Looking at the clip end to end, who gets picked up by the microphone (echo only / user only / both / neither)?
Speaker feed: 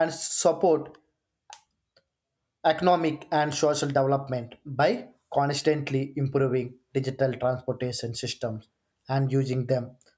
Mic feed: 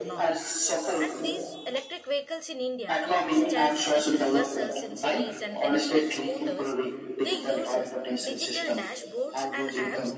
both